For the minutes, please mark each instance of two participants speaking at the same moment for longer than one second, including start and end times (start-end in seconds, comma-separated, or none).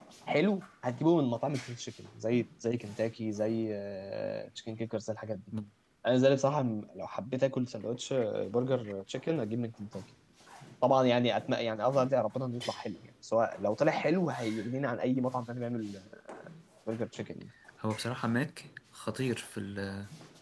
none